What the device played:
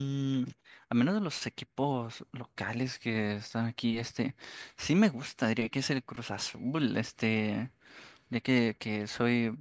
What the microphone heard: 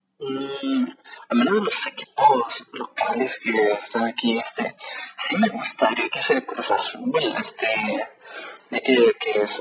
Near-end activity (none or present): none